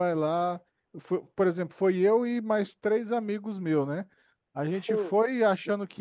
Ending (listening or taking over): listening